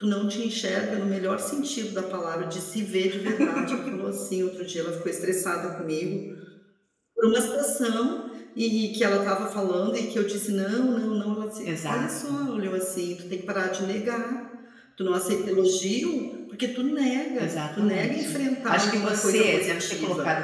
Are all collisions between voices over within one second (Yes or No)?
No